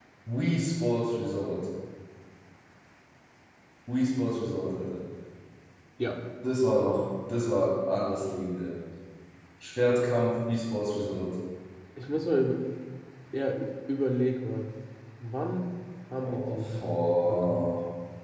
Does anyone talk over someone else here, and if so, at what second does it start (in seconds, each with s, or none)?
16.2 s